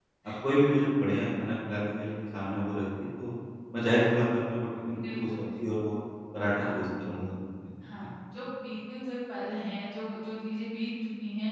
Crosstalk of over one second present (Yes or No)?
No